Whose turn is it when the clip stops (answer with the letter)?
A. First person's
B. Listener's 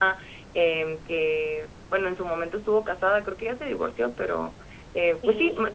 A